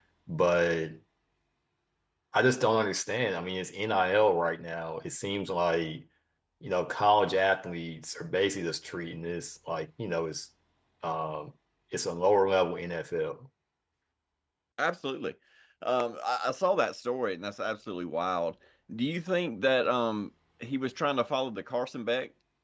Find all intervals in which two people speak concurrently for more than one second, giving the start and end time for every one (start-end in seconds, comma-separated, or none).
none